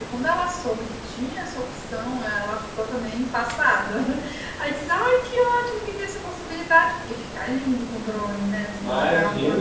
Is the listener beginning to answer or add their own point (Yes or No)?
Yes